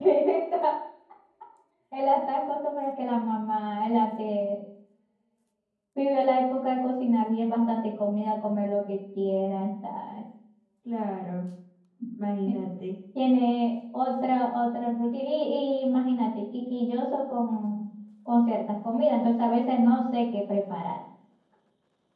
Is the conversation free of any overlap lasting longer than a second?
Yes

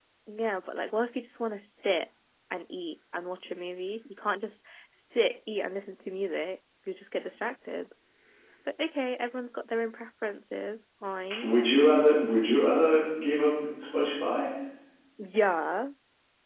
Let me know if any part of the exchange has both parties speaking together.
No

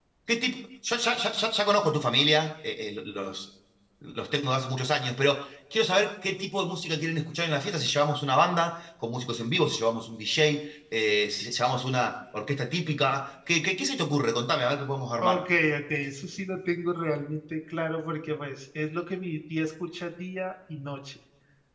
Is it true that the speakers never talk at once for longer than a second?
Yes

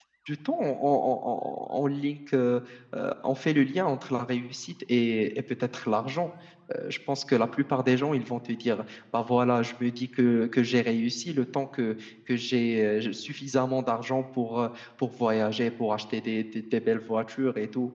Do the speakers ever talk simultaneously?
No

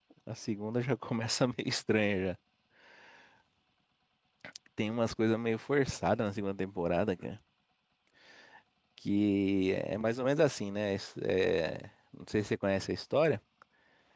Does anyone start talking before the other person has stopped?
No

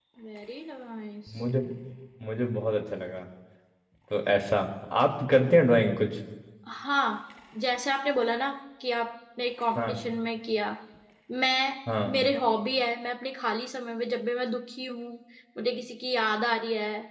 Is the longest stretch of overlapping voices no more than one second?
Yes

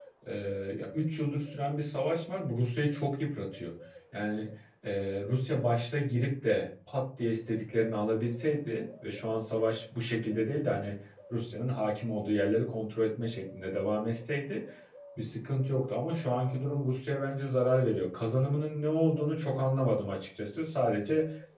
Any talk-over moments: No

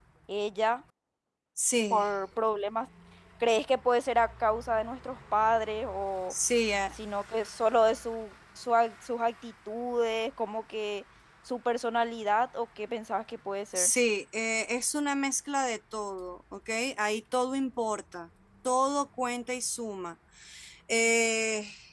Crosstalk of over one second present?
No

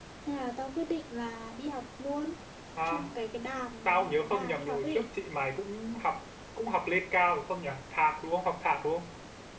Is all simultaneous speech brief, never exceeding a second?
No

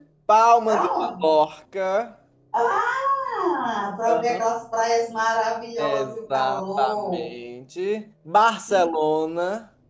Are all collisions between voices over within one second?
No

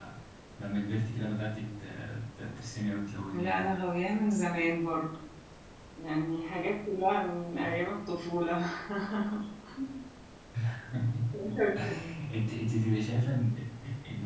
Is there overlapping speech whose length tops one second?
No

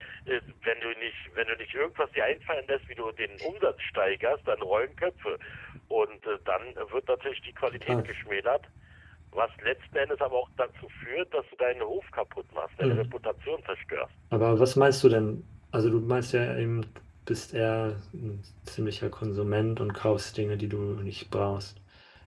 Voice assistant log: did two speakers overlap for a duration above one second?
No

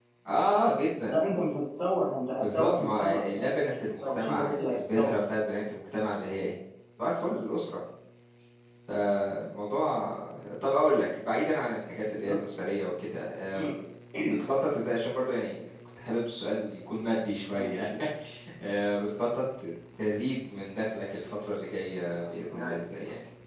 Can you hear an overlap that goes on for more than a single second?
Yes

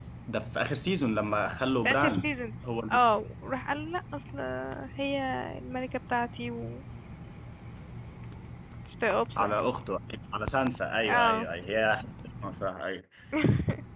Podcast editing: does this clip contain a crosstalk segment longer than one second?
No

